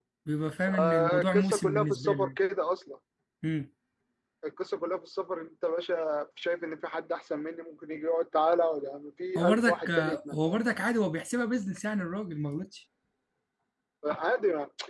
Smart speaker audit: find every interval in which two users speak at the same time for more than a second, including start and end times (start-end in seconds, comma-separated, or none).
0.7-2.3, 9.4-10.6